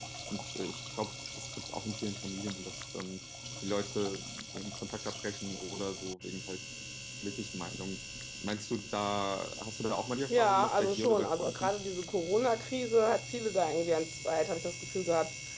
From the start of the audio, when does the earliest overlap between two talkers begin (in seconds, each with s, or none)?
10.3 s